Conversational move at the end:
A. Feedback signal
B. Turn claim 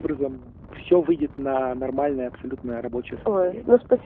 B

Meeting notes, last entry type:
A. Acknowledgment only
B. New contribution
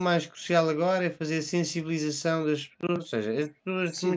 B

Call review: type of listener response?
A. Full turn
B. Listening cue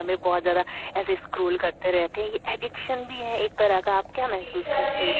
A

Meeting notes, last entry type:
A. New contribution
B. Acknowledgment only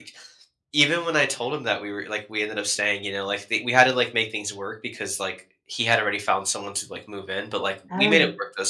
B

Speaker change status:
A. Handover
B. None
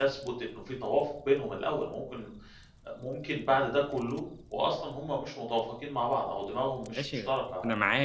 A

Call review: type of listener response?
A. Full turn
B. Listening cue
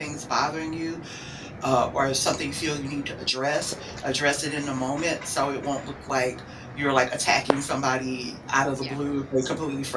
B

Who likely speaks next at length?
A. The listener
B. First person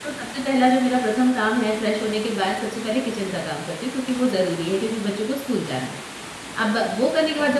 B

